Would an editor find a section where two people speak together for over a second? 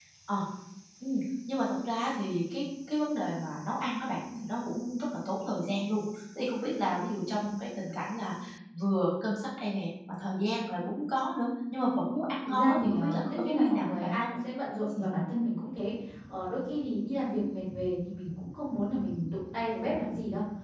Yes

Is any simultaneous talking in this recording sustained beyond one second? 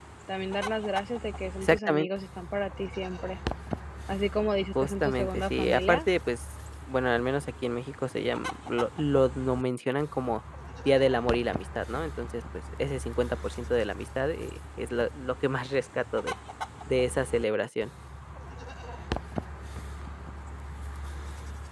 Yes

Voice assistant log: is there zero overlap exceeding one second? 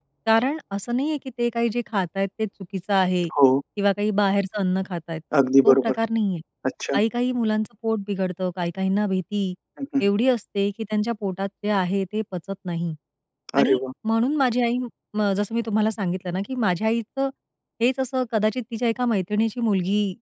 Yes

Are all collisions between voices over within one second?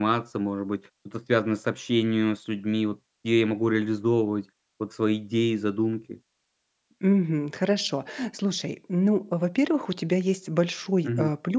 Yes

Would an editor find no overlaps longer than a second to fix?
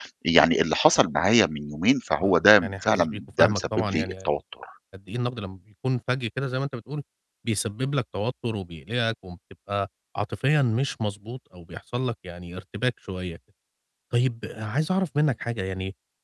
No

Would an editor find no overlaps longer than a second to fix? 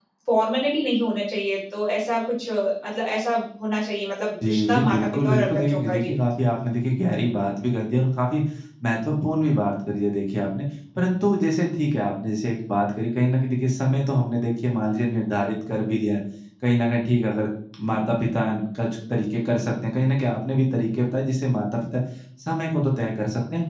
No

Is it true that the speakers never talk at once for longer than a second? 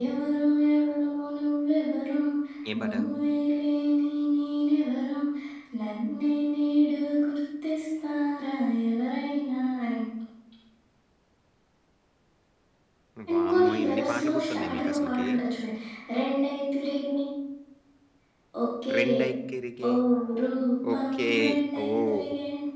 No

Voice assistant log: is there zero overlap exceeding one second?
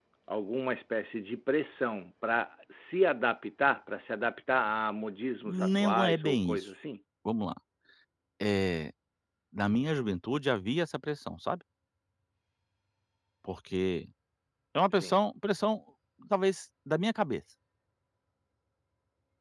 No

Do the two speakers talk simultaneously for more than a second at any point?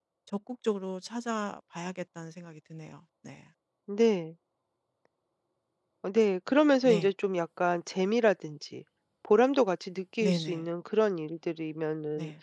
No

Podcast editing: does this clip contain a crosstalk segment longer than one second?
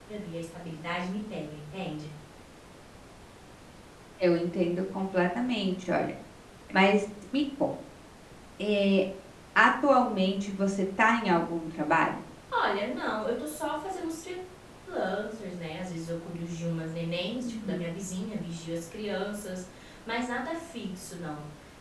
No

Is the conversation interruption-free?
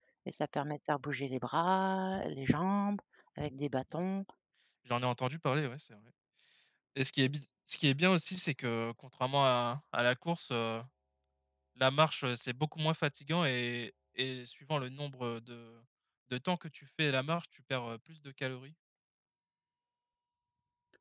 Yes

